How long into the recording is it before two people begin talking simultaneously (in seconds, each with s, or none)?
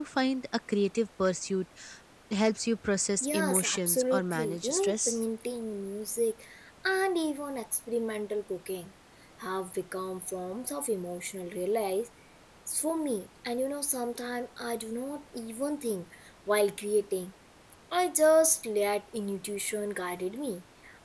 3.2 s